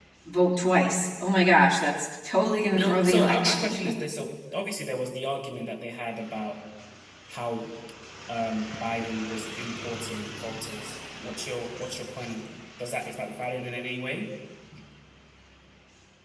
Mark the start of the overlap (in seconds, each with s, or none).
2.8 s